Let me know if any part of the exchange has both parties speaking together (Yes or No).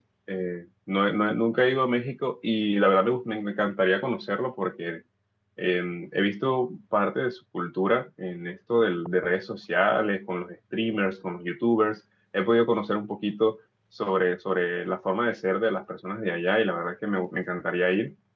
No